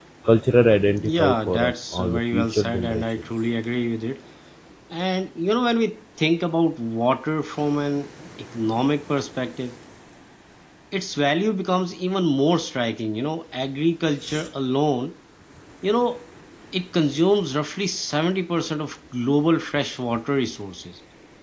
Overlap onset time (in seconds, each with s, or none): 1.0 s